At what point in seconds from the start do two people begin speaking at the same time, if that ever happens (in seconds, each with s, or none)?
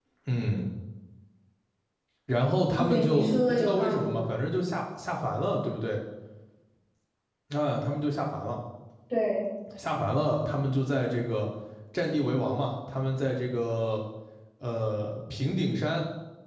2.8 s